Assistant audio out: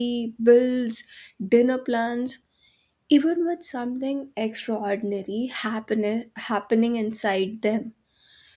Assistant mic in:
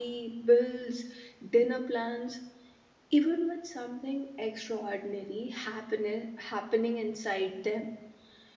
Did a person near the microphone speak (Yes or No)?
No